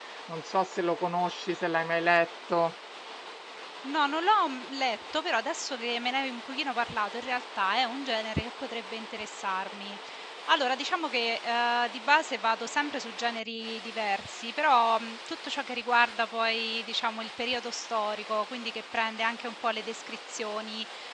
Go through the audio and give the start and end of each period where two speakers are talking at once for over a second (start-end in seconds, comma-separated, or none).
none